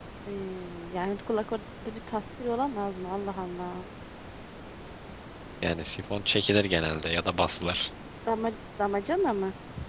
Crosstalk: none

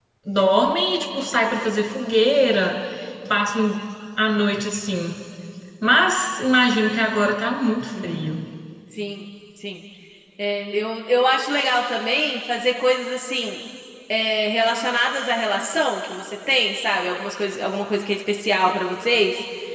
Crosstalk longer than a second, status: none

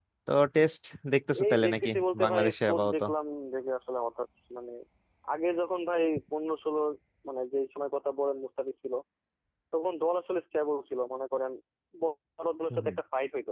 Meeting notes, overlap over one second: present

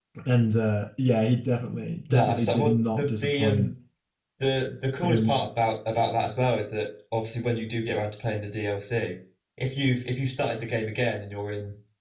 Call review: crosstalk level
present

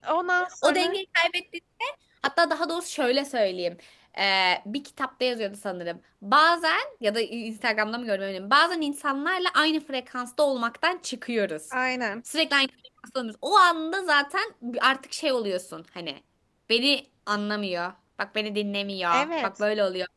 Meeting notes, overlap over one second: none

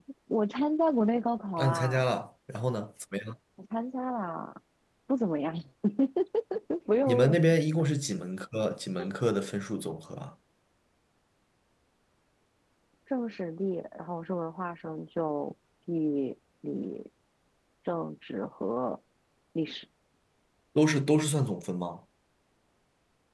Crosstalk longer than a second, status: none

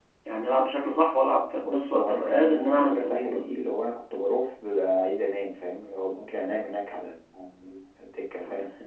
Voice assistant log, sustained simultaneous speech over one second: present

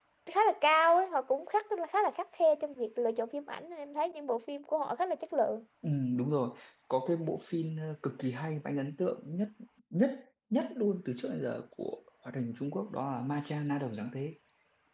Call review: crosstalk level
none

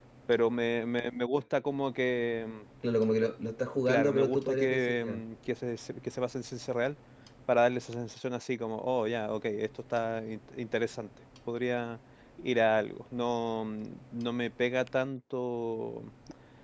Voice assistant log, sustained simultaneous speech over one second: present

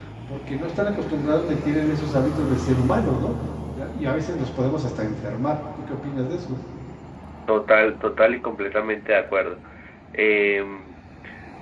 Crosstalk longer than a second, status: none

